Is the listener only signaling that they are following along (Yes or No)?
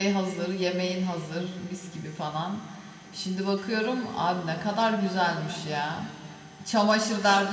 Yes